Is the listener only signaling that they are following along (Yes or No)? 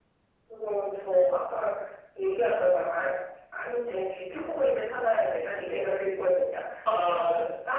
Yes